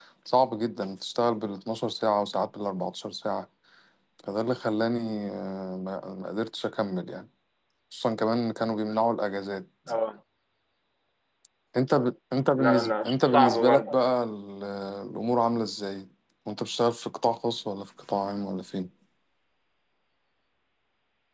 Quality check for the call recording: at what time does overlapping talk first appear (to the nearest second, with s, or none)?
13 s